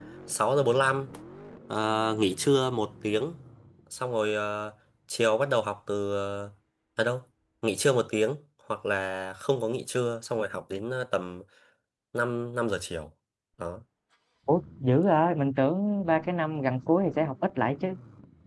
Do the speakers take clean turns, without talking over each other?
Yes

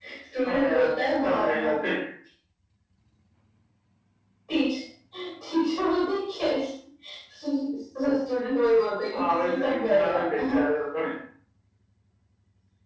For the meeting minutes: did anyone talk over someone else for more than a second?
Yes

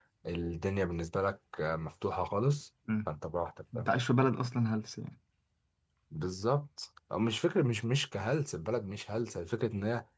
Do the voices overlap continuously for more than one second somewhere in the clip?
No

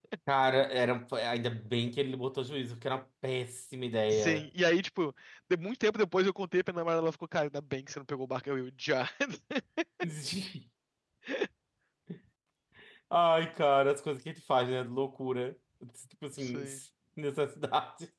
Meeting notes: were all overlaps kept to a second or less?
Yes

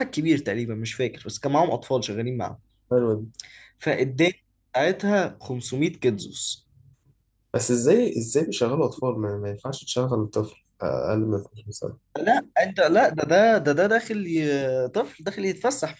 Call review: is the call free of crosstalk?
Yes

